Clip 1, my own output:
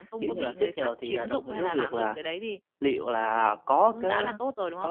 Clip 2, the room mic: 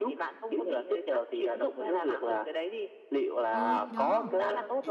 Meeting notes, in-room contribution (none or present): present